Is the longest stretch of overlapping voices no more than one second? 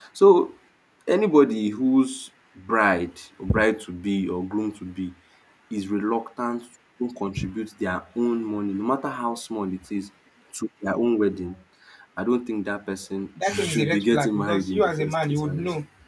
No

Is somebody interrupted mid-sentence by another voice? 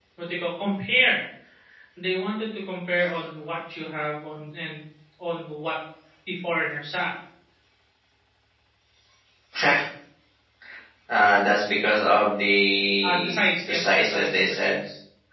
Yes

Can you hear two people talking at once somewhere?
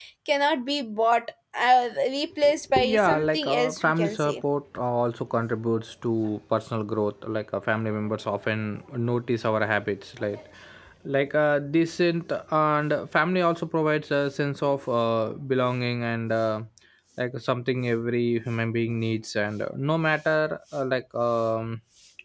Yes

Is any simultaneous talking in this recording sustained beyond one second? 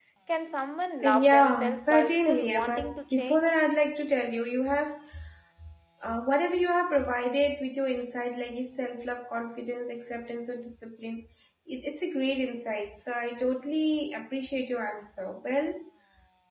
Yes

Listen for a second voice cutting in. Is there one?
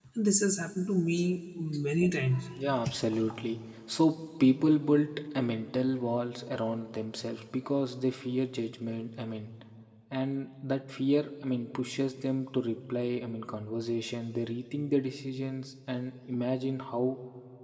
No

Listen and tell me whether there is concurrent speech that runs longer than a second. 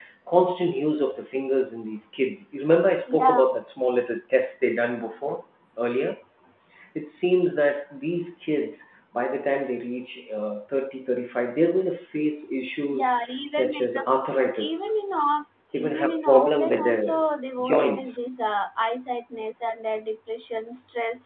Yes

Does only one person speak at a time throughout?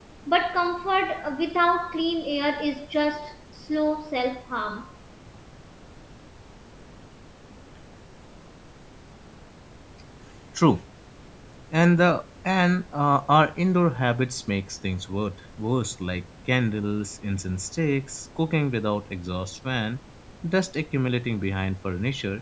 Yes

